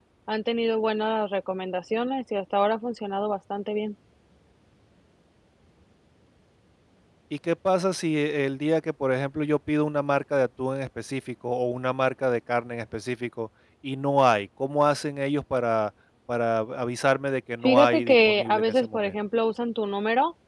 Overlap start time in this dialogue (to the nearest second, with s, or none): 18 s